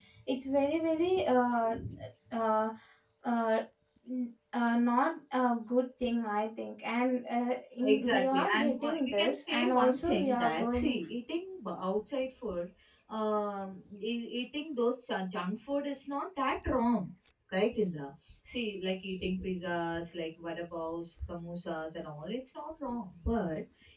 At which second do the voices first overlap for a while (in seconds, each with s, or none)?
7.8 s